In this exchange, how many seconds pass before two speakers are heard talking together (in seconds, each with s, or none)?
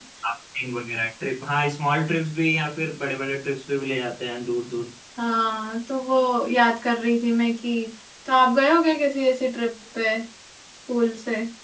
none